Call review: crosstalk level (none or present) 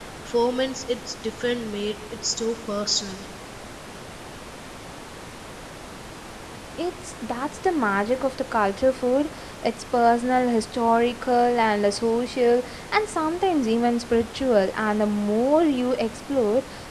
none